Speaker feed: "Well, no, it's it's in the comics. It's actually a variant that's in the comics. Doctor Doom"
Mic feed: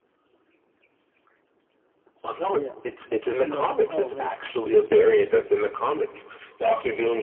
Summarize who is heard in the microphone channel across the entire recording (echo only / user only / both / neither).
both